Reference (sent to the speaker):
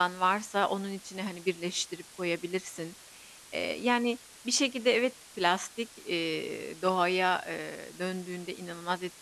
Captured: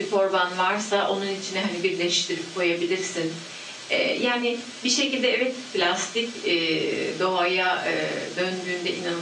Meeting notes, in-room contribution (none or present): none